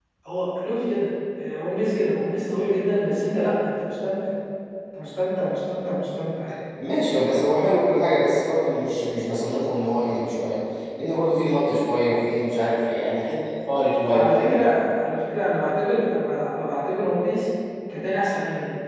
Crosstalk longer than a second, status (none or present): none